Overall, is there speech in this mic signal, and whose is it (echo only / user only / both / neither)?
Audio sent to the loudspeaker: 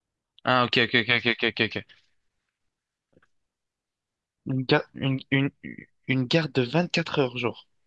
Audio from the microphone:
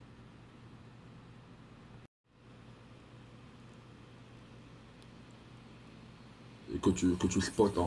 user only